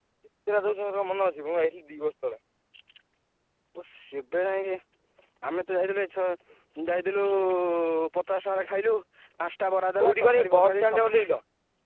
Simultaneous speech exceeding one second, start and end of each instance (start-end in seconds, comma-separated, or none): 10.0-11.2